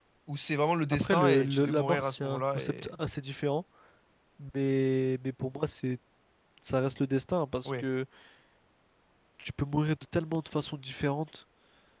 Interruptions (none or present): present